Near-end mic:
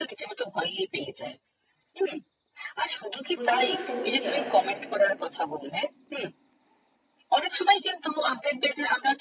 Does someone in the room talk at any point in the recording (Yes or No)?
Yes